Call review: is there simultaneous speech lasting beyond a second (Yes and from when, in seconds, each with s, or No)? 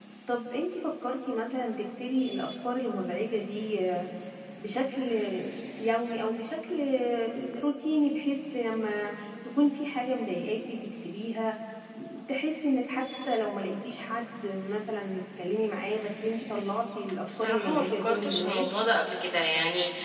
Yes, from 17.3 s